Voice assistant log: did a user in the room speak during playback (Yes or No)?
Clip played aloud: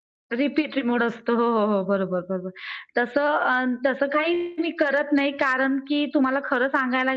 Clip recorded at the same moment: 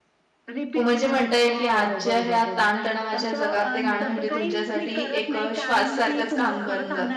Yes